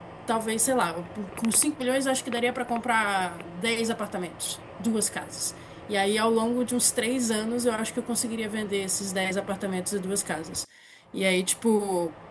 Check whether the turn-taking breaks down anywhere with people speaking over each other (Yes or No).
No